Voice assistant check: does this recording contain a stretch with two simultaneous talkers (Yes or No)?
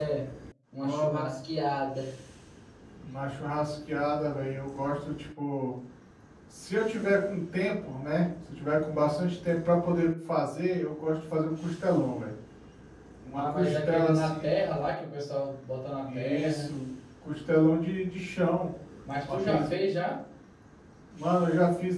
Yes